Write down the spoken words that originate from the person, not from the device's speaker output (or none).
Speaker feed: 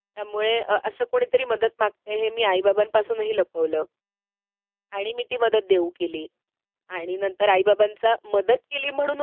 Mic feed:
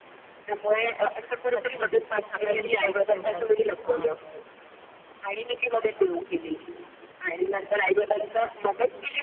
नक्कीच. कसा काय विश्वास ठेवलास? हां,